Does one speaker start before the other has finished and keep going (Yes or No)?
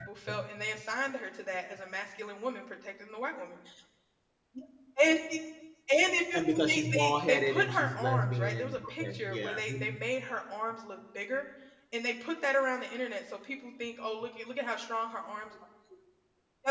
Yes